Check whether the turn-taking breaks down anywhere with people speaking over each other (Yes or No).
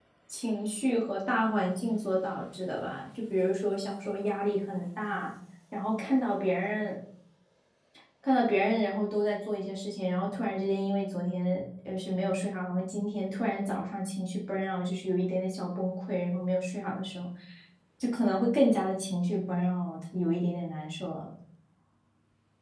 No